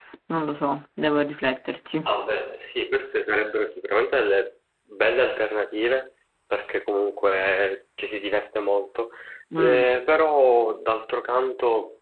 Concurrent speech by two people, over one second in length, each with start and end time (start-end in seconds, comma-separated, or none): none